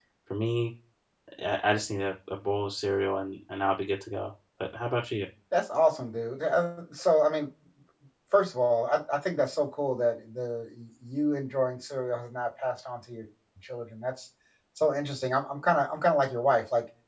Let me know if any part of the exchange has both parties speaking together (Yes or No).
No